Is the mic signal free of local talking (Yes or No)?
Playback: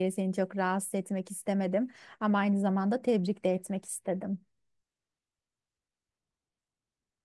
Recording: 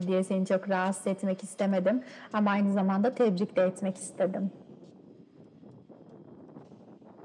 Yes